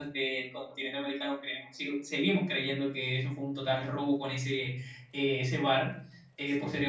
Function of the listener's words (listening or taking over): listening